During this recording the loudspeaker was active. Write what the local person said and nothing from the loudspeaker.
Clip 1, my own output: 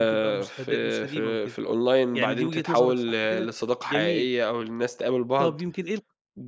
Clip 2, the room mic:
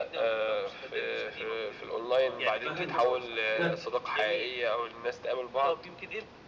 آه، فهمتك، ف

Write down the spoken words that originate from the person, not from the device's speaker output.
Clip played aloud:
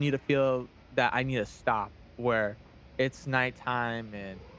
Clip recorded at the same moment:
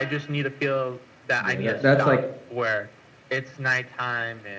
Yeah. That that's like

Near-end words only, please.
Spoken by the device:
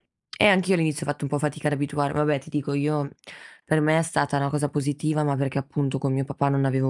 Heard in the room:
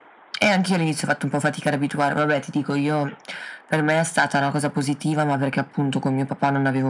none

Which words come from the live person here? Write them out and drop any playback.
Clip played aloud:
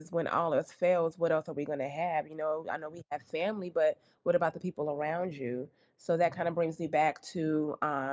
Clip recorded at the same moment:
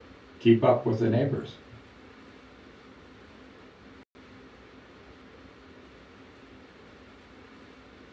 keep up with the neighbors.

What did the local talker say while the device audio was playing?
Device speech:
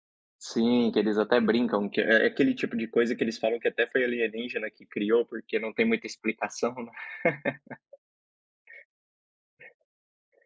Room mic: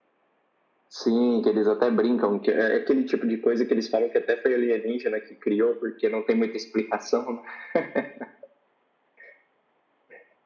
none

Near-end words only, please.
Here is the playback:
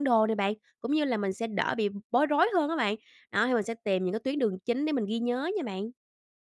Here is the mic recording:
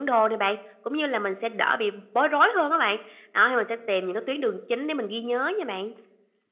none

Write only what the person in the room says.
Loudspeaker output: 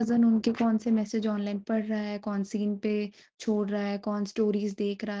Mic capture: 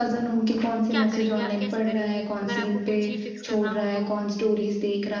क्या करेंगे? आप कैसे करेंगे अगर आपको कुछ ही फिक्स करना हो तो?

